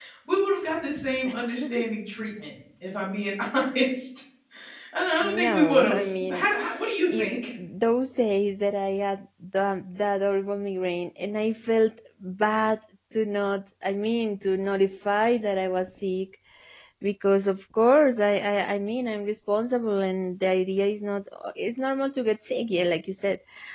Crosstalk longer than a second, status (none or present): present